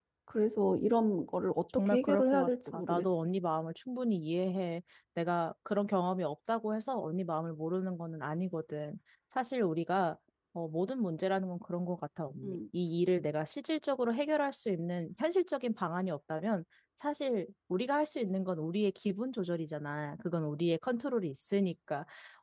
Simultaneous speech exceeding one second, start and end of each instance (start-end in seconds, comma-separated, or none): 1.8-3.3